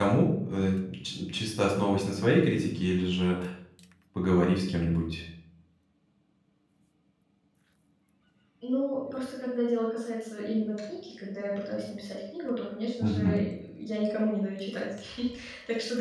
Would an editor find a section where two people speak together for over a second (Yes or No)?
No